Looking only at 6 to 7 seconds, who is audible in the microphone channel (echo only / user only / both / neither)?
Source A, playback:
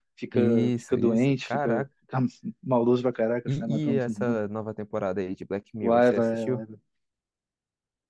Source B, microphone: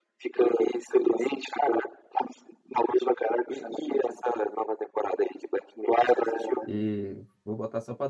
both